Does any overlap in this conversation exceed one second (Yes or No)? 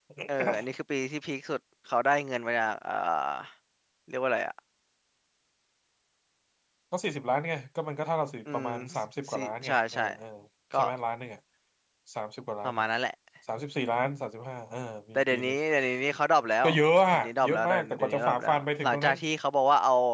Yes